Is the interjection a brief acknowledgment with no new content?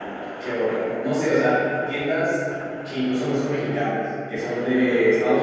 Yes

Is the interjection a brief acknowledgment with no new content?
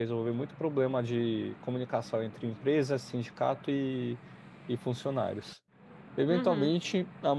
Yes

